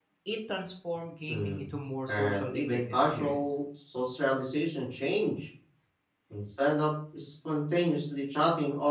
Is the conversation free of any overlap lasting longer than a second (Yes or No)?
No